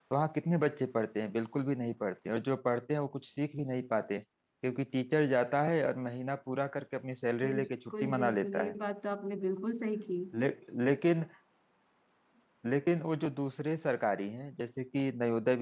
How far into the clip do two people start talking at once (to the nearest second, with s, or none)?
7 s